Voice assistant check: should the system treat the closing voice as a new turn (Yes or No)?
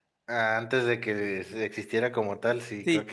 Yes